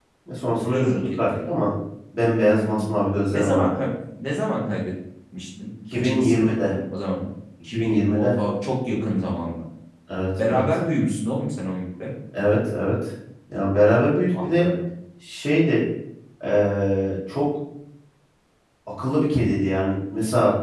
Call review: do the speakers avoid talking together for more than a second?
No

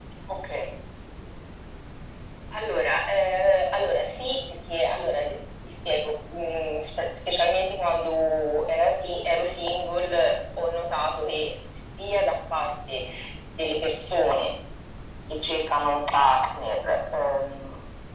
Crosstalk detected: No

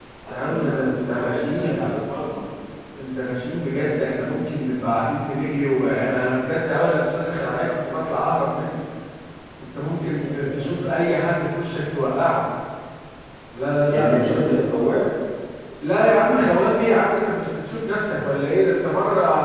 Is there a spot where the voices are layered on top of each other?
Yes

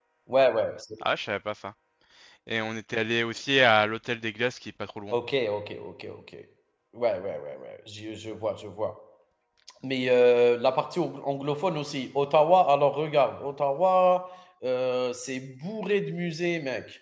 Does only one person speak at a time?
Yes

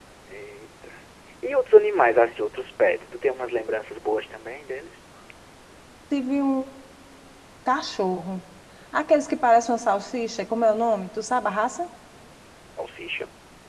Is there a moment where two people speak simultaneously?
No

